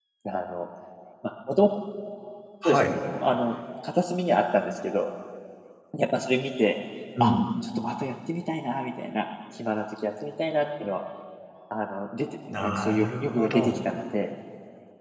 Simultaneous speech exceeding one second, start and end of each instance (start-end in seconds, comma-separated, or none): 12.5-13.8